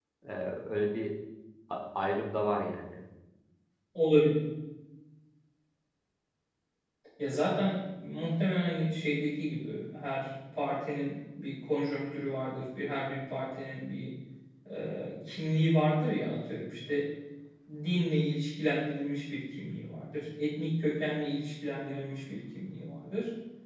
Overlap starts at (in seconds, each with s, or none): none